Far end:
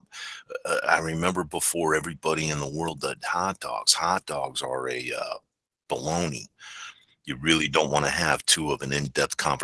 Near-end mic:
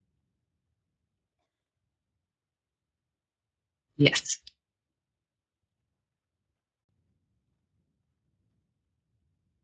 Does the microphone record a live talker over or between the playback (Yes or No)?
Yes